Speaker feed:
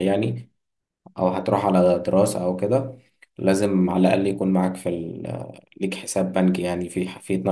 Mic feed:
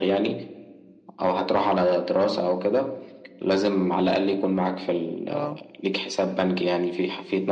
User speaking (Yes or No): Yes